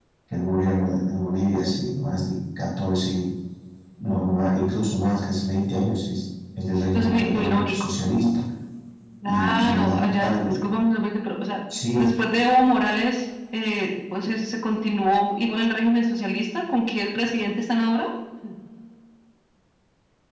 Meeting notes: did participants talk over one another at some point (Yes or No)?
Yes